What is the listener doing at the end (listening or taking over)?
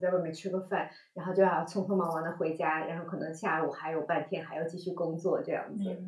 taking over